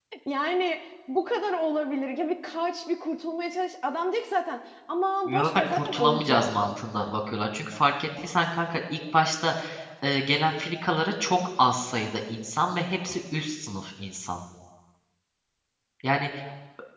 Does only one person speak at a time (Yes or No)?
No